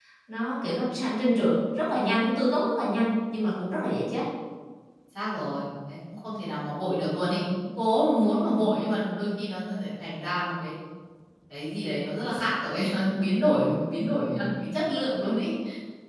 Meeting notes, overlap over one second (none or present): none